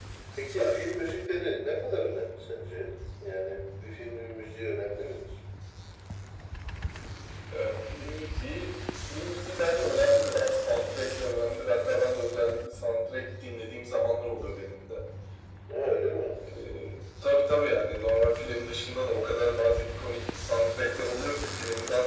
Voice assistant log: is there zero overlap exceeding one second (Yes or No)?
Yes